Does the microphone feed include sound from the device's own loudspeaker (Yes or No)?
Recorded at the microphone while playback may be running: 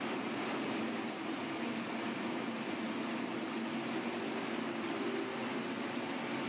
No